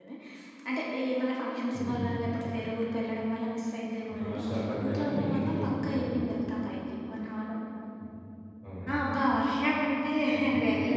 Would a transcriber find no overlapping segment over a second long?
No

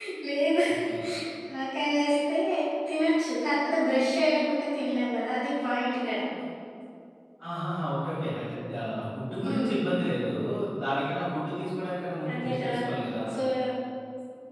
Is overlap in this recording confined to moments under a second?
Yes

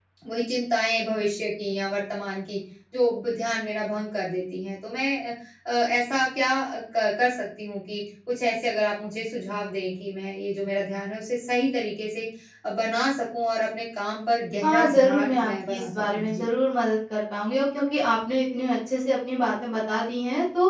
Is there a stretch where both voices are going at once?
Yes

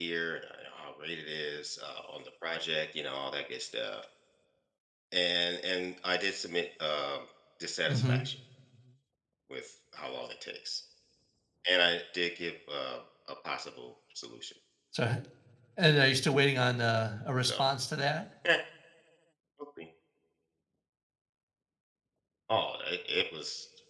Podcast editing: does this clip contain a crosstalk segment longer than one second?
No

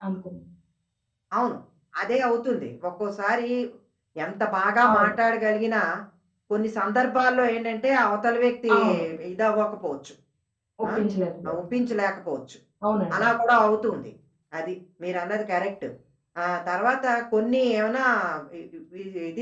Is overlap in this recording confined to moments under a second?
Yes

